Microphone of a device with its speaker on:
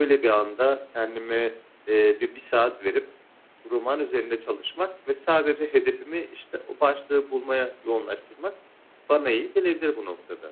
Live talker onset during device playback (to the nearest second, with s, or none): none